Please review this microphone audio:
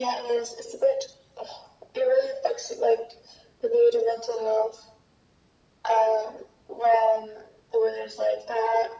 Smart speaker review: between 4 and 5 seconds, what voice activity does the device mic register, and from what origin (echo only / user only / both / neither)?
echo only